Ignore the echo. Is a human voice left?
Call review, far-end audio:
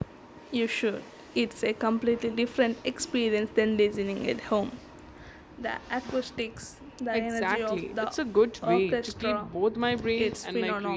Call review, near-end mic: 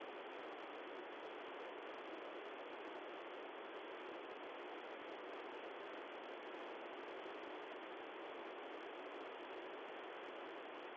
No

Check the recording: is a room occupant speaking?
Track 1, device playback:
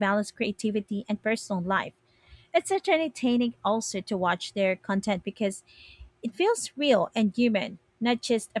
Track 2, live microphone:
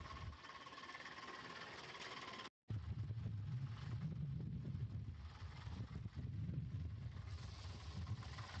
No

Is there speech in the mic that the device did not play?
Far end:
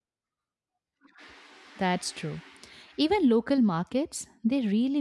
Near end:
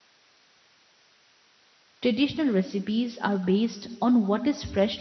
Yes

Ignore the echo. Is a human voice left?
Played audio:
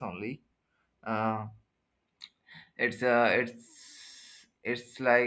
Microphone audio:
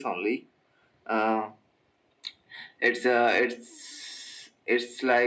No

